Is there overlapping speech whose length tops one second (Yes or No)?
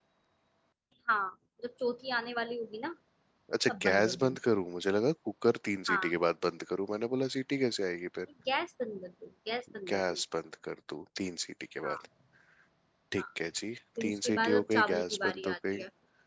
Yes